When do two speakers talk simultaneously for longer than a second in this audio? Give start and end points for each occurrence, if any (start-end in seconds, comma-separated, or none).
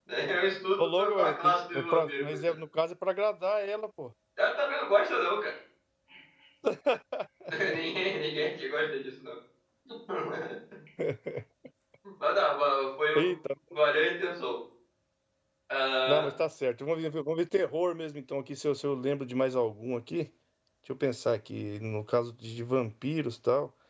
0.8-2.5